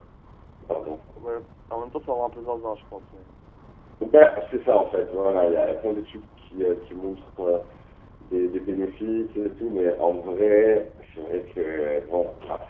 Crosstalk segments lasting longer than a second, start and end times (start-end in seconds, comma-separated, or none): none